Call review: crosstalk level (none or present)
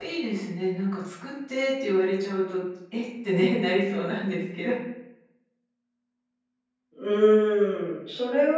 none